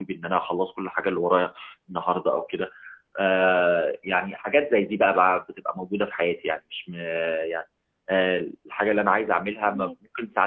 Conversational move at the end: listening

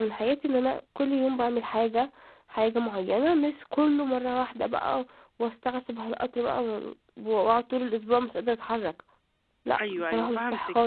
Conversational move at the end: taking over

